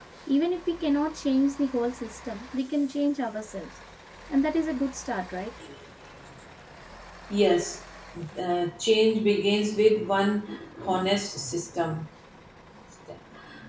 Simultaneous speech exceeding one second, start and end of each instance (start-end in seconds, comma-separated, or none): none